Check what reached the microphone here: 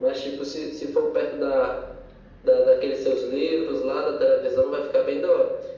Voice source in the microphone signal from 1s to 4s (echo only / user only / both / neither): echo only